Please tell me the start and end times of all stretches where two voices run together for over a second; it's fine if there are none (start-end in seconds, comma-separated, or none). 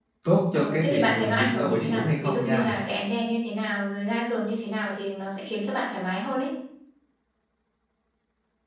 0.5-2.7